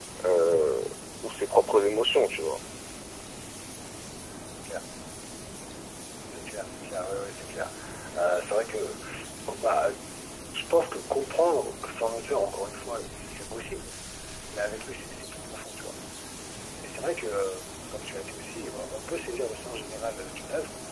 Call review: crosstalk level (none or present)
none